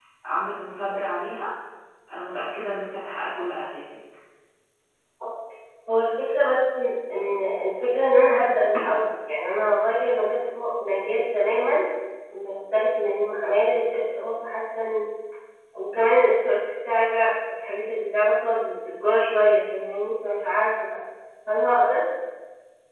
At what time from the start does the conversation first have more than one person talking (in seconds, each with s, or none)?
none